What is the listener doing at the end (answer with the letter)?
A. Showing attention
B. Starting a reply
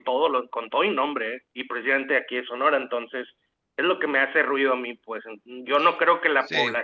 A